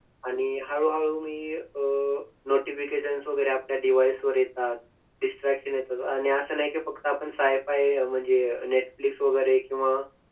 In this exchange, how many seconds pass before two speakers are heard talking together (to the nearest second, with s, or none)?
none